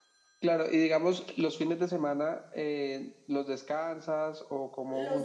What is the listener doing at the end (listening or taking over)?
taking over